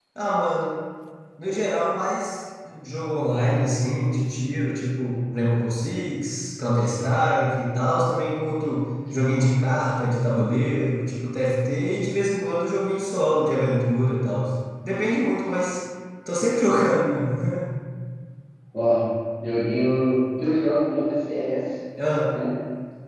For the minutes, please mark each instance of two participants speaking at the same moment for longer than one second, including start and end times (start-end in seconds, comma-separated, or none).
none